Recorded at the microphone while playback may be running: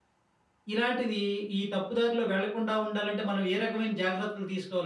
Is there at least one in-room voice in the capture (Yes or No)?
Yes